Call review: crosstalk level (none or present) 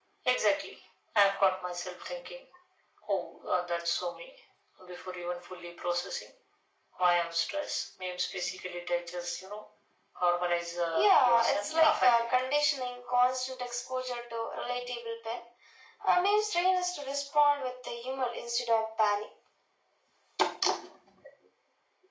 present